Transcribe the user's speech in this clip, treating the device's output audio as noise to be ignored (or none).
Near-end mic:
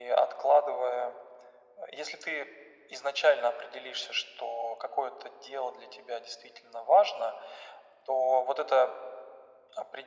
none